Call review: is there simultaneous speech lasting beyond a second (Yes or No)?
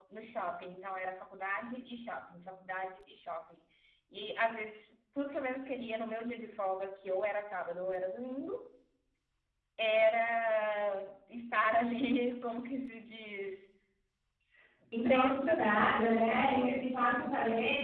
Yes